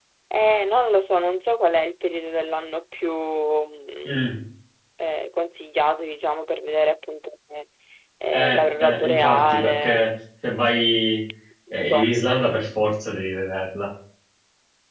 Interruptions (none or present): present